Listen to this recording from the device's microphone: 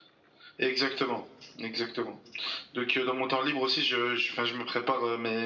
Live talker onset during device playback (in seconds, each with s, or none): none